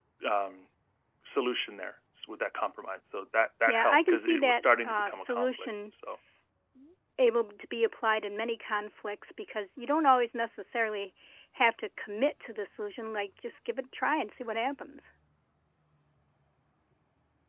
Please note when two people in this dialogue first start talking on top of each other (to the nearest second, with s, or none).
4 s